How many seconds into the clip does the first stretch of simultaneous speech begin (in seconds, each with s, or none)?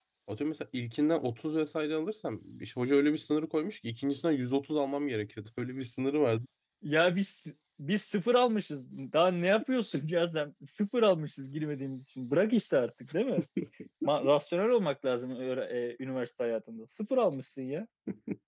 none